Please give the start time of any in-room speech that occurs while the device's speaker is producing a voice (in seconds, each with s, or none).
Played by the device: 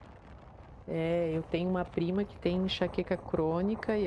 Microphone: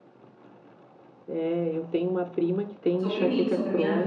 3.0 s